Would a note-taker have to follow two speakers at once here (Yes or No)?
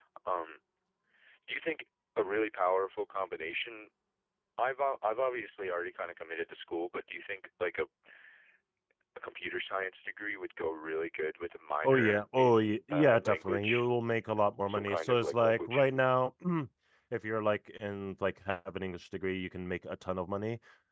Yes